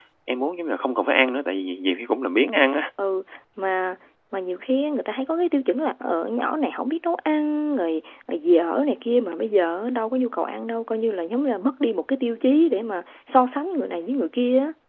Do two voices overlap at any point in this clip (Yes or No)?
No